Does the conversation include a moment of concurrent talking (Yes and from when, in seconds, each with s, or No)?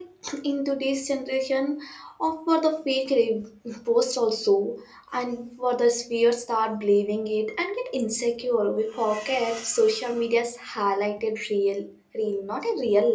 No